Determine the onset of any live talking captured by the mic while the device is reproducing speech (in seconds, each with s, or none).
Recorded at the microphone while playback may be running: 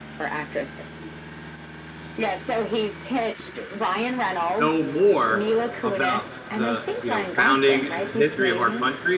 4.6 s